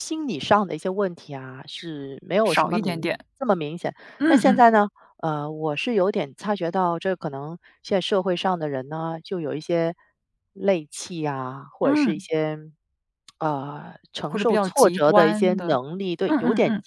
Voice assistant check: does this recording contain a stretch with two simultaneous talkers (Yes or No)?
Yes